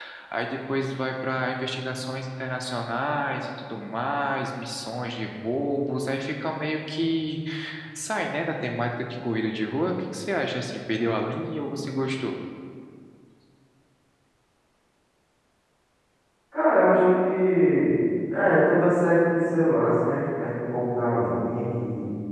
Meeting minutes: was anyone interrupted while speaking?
No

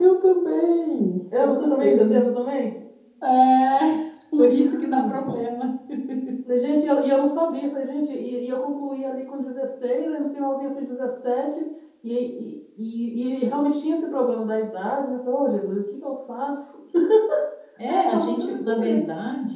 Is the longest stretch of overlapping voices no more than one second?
No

